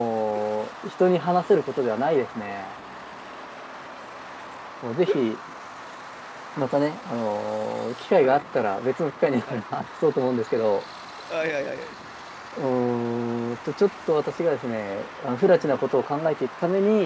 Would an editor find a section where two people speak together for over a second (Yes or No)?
No